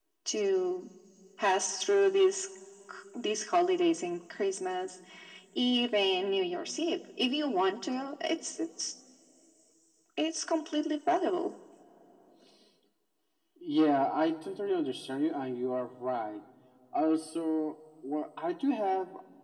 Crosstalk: none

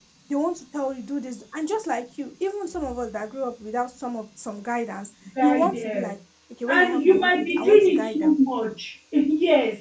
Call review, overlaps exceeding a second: present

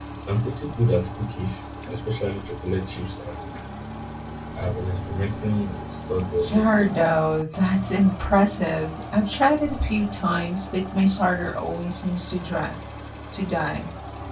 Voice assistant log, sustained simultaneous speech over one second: none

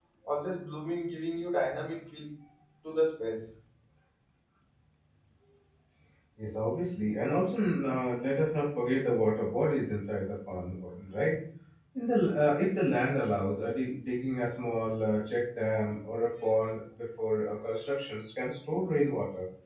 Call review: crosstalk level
none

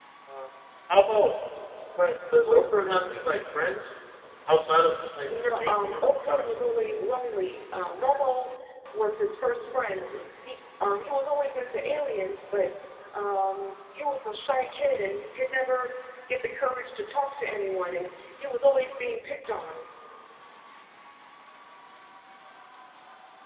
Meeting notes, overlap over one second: present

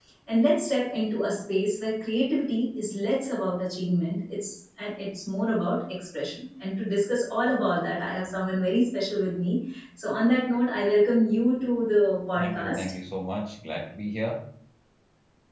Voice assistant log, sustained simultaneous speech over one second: none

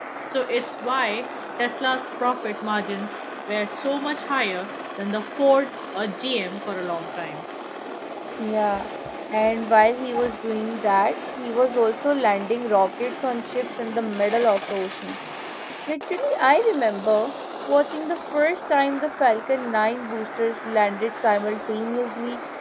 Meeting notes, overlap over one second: none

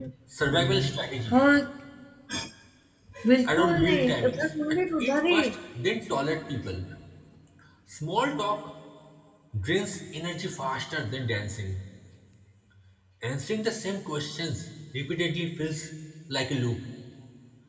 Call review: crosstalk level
present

